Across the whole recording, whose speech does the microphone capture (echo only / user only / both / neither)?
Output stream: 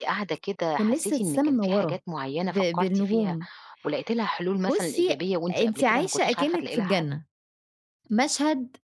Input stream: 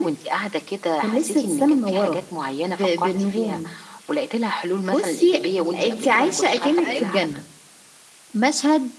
both